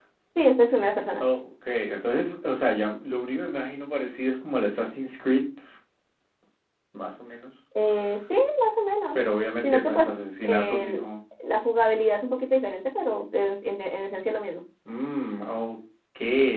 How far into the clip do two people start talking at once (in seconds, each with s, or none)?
9.6 s